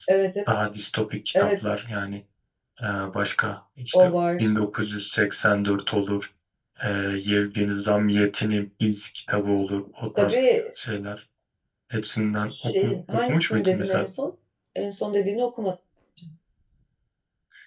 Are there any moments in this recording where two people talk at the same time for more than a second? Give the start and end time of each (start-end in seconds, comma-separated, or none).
12.5-14.1